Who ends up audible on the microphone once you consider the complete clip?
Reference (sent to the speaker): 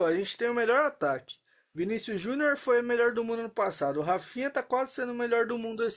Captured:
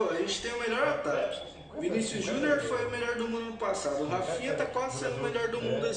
both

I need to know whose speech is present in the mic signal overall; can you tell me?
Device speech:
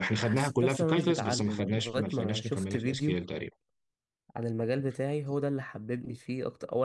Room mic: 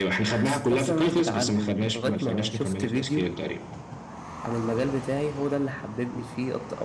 echo only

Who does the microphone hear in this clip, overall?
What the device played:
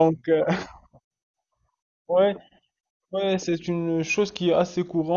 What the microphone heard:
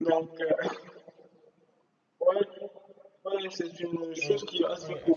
both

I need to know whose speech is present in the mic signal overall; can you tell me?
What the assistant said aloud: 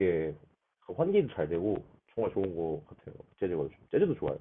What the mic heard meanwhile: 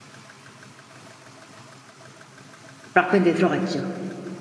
user only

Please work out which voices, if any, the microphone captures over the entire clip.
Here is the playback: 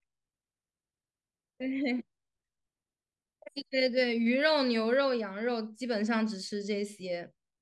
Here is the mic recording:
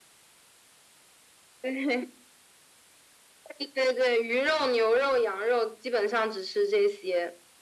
echo only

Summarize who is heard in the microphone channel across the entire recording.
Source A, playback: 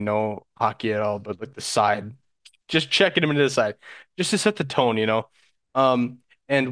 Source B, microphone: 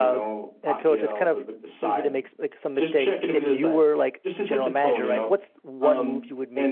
both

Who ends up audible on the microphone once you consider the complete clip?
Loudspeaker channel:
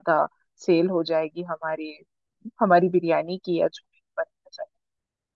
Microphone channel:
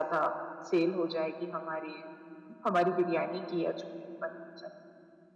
echo only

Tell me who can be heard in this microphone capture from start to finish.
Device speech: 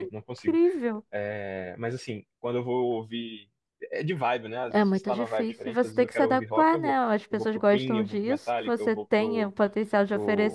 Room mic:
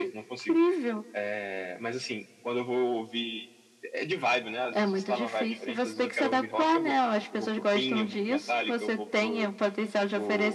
echo only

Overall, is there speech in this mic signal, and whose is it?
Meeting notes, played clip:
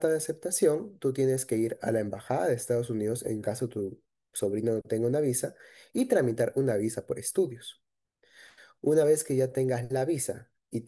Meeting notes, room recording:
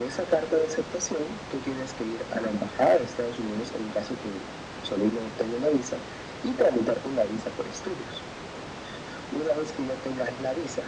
echo only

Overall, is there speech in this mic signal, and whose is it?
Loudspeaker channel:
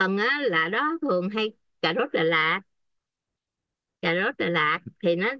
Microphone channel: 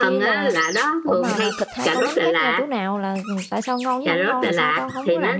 both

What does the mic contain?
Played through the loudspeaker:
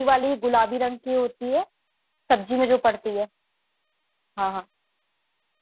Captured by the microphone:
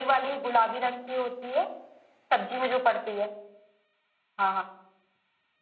echo only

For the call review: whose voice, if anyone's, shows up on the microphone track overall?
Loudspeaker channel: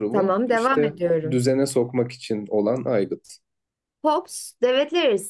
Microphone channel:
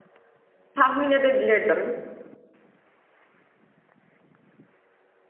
user only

